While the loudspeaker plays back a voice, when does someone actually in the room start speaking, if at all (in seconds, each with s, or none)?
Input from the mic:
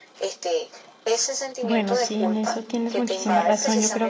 1.6 s